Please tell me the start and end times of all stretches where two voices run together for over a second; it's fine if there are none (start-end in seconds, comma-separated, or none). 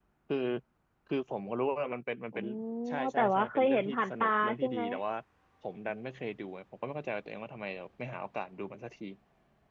3.1-4.8